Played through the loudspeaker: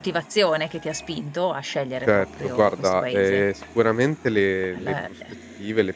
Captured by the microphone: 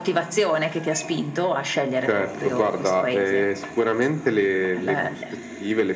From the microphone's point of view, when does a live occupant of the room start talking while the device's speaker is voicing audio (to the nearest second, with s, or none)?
none